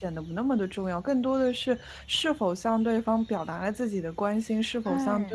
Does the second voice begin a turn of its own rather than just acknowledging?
No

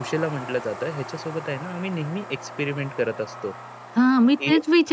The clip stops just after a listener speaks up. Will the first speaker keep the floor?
No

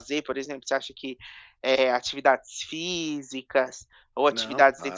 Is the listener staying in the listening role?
Yes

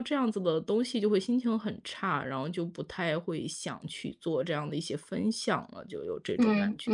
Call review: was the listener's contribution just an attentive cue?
No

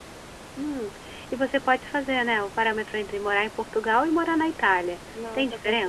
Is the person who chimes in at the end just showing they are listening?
No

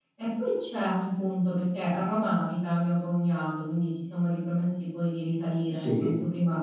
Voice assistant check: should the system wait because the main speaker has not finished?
Yes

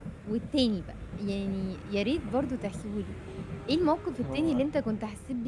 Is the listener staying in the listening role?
Yes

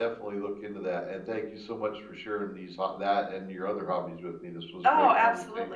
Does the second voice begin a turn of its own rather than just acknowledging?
Yes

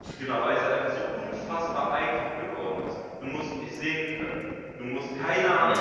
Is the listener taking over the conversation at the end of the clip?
No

